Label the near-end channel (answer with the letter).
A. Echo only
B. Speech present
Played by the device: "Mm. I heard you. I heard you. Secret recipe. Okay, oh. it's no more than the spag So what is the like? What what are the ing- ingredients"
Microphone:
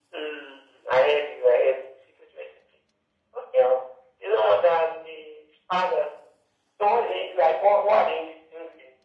A